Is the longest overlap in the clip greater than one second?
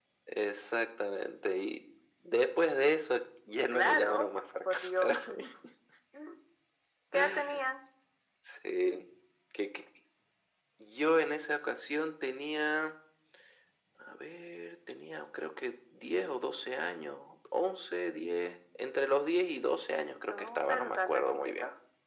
Yes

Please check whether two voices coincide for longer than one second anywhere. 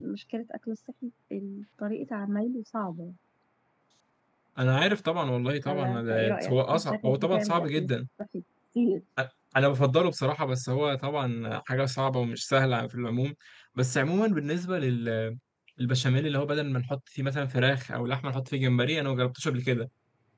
Yes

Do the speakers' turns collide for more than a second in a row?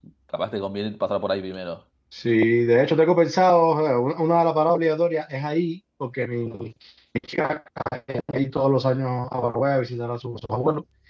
No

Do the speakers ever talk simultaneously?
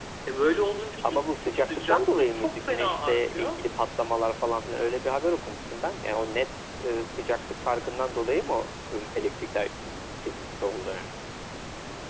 Yes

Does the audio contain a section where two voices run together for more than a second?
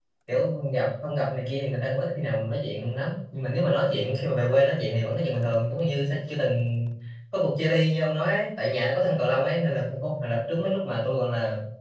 No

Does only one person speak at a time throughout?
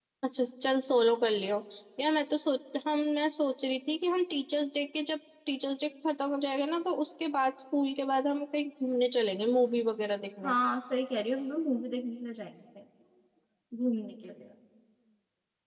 Yes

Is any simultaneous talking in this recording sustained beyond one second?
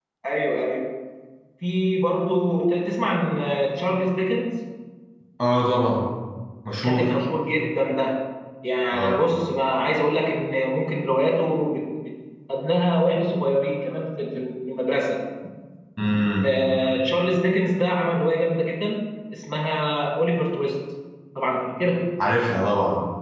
No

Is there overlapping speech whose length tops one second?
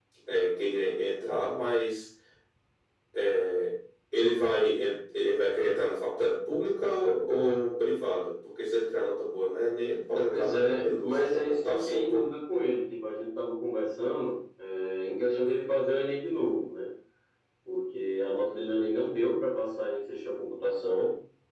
Yes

